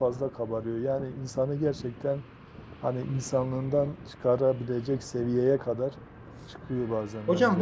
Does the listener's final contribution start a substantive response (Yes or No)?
Yes